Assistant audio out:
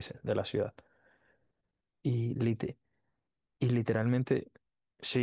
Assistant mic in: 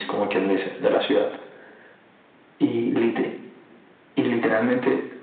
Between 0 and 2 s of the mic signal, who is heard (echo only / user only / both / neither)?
echo only